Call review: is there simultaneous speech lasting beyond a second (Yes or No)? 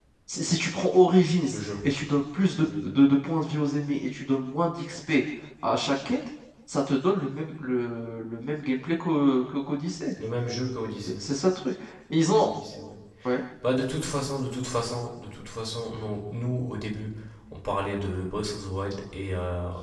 No